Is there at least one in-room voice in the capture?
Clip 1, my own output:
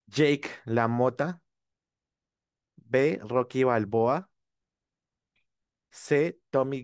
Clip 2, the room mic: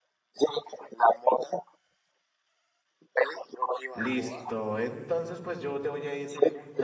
Yes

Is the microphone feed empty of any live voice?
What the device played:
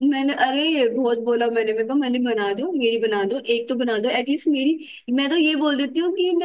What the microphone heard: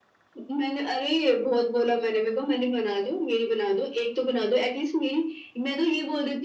Yes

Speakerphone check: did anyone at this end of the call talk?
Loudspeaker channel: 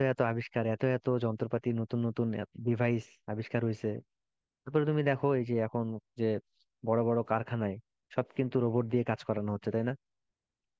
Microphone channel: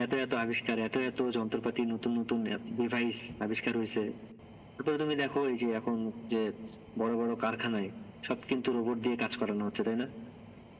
No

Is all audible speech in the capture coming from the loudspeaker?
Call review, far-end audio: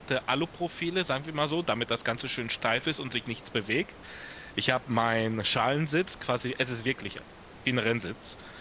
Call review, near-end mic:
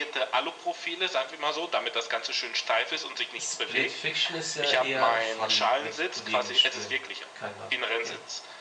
No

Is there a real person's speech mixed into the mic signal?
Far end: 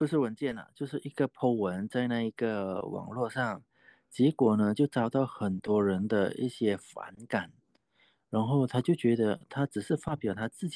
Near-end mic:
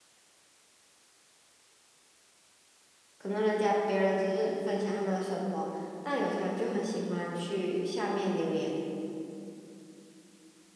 Yes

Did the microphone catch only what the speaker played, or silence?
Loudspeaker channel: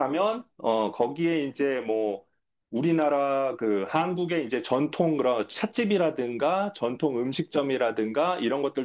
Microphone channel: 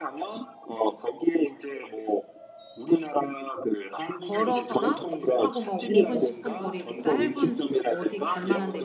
No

